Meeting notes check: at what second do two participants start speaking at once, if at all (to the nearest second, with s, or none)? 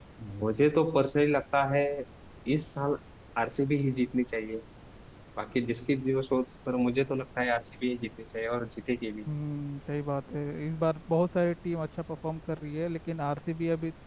none